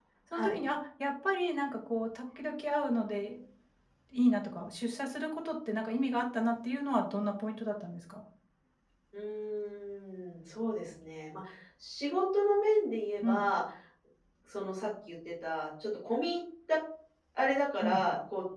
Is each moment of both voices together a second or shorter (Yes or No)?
Yes